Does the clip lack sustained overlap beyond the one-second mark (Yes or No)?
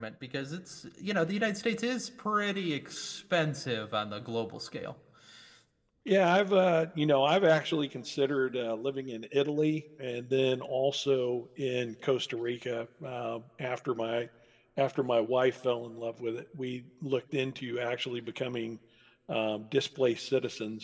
Yes